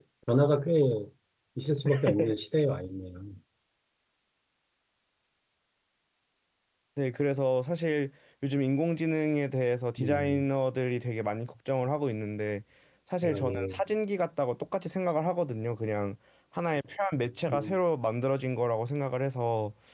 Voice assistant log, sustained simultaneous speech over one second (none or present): none